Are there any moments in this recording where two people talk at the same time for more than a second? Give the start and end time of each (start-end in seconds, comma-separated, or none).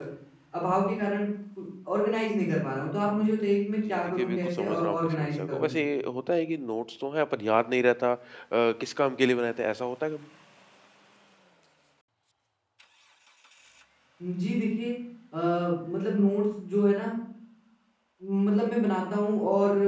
3.9-5.7